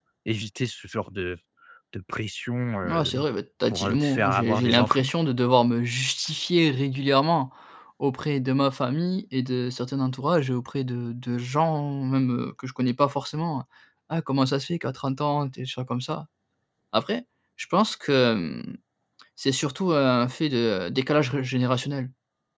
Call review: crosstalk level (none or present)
present